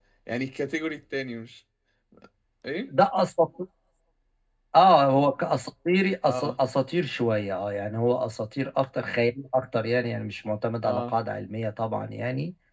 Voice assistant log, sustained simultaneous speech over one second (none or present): none